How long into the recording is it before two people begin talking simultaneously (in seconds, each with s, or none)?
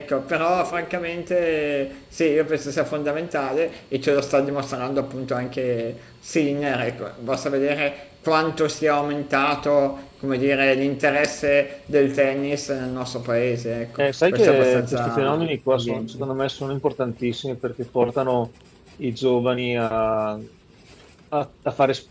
14.0 s